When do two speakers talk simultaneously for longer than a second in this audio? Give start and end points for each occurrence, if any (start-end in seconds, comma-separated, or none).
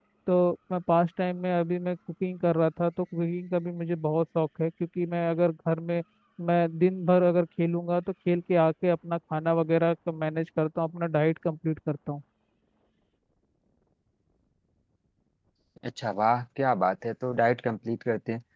none